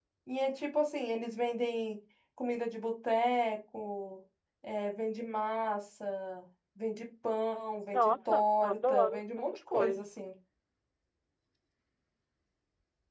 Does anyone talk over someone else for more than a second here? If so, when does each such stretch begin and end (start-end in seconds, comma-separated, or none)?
7.9-10.2